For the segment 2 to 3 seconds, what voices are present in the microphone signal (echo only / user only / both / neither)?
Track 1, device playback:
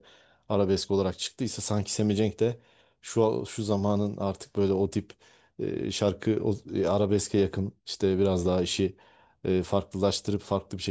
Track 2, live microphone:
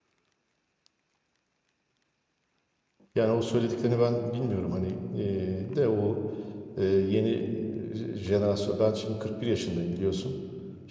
neither